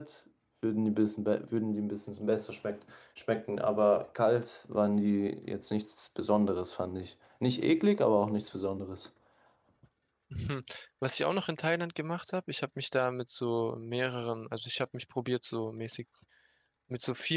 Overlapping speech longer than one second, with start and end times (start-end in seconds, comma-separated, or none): none